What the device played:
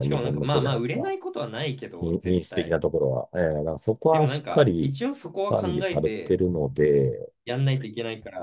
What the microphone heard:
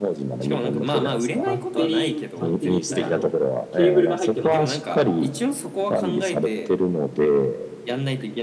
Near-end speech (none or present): present